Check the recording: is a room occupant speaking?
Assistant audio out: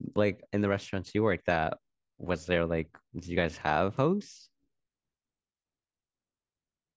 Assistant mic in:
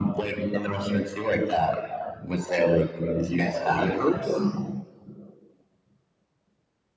No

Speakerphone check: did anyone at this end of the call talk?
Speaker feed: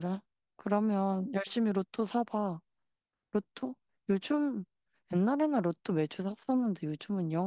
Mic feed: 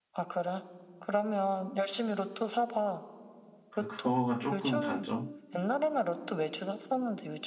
Yes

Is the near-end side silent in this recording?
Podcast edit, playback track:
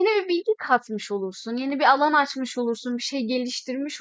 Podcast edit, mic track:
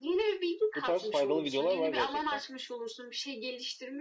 No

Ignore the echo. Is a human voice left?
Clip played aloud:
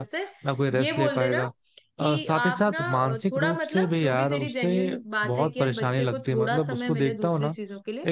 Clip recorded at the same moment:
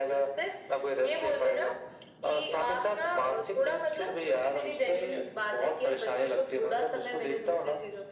No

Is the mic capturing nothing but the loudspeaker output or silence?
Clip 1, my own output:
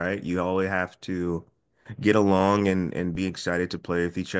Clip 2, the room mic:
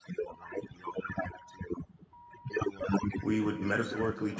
No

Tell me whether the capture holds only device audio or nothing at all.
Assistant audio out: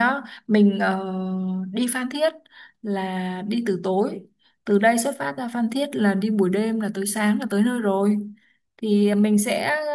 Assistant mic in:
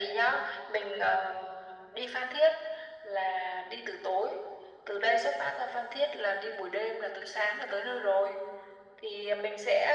Yes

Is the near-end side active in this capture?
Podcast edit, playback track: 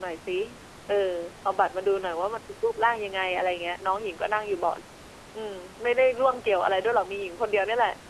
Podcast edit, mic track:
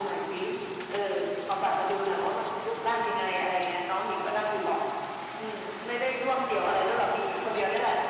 No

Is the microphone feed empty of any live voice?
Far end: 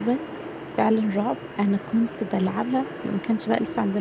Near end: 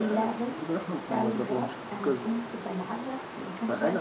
No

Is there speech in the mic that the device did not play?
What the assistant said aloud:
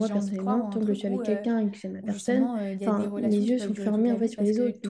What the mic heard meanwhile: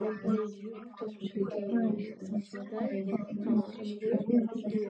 Yes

